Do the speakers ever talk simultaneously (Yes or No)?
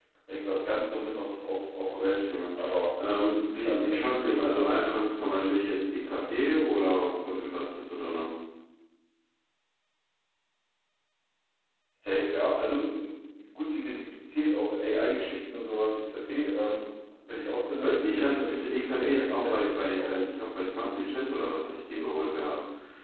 Yes